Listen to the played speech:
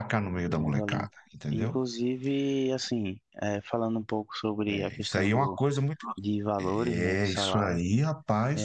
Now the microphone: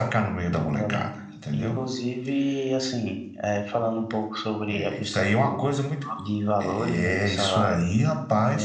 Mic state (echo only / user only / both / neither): echo only